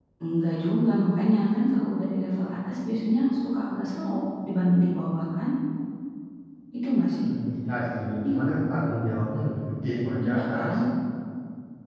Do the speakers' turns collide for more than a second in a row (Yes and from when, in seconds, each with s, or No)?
No